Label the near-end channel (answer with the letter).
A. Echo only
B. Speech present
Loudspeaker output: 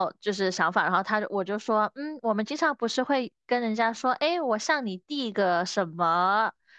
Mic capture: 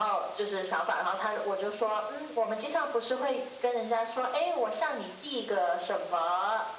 A